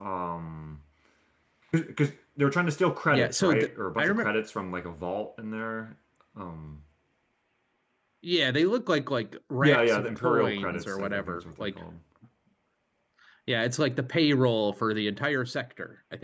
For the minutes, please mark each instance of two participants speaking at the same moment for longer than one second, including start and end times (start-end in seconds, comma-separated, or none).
3.1-4.3, 9.6-11.8